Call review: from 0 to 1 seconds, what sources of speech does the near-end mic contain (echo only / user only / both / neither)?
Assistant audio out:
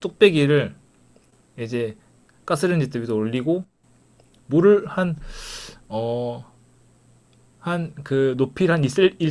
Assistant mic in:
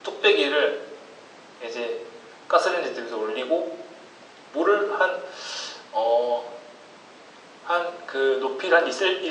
echo only